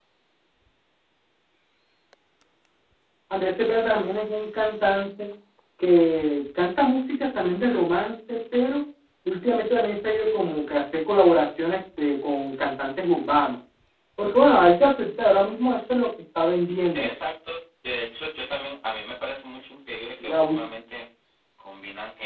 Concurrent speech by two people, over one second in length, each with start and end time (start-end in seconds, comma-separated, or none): none